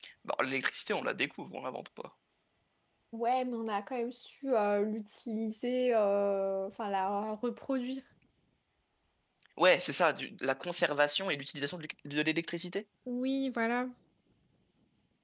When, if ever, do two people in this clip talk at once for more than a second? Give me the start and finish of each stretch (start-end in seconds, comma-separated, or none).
none